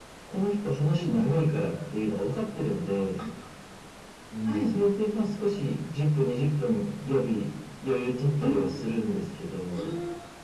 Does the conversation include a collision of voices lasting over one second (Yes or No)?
No